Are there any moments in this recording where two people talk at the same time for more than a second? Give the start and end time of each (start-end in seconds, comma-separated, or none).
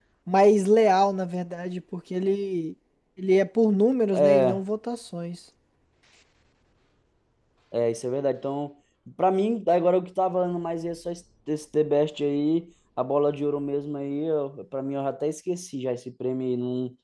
none